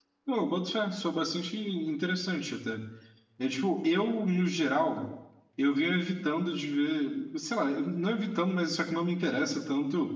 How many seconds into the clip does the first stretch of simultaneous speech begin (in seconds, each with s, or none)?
none